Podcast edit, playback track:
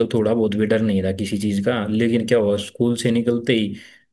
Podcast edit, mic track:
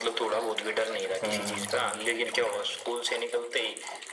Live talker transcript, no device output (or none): हाँ